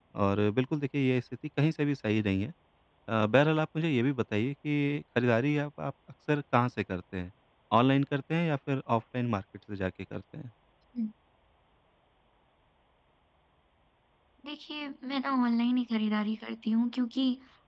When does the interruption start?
none

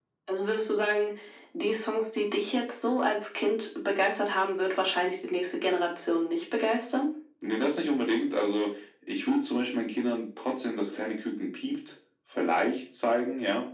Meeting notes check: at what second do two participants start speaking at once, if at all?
none

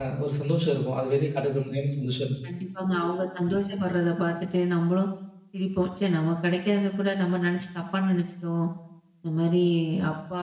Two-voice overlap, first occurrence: none

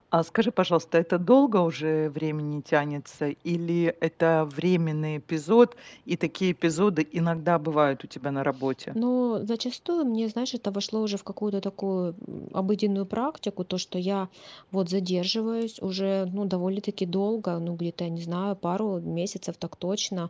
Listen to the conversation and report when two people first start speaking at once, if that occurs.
none

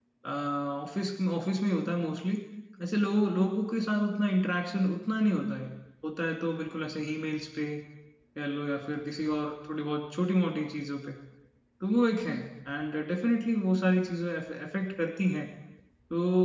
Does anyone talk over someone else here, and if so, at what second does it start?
none

